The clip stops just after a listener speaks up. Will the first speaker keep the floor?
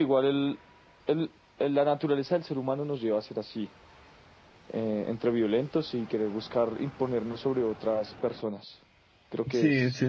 No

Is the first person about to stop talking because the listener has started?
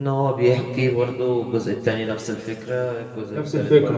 No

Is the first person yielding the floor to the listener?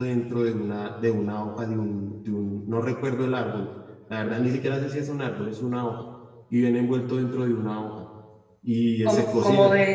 Yes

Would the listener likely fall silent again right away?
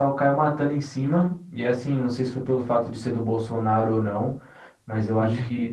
Yes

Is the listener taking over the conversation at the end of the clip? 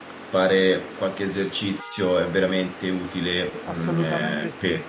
Yes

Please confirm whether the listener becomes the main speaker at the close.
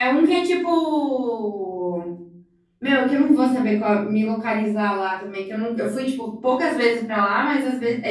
No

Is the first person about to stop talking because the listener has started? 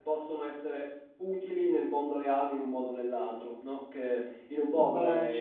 No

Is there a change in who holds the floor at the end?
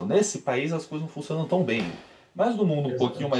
No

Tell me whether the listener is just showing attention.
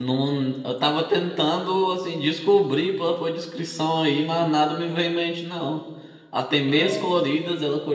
Yes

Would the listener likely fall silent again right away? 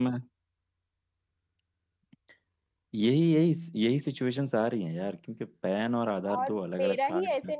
No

